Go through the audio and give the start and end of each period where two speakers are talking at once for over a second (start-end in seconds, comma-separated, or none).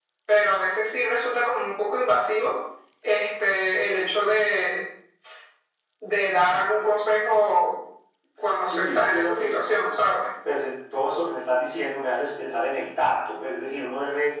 8.6-10.1